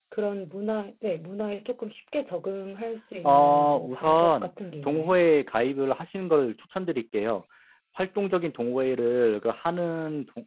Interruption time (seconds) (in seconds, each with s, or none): 3.2 s